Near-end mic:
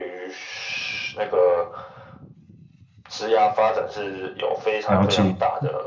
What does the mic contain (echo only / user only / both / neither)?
both